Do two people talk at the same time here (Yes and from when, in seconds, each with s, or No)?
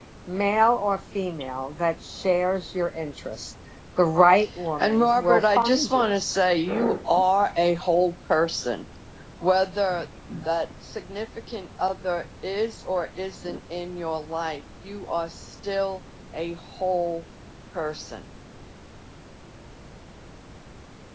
Yes, from 4.8 s